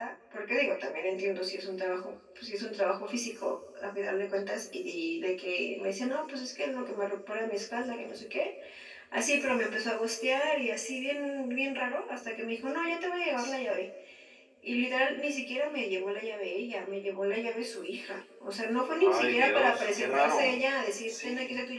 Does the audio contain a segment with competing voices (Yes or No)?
Yes